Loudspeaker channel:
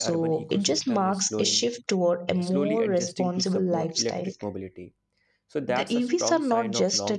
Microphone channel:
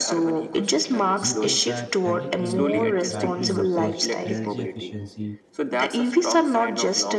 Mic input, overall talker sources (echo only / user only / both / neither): both